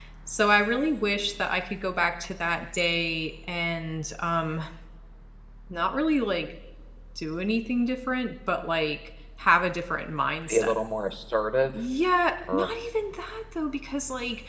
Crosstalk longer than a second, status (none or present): none